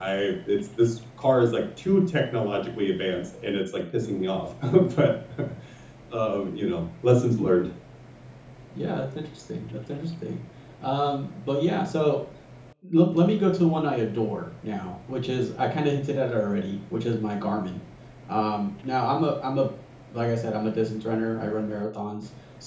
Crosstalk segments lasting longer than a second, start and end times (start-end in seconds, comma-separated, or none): none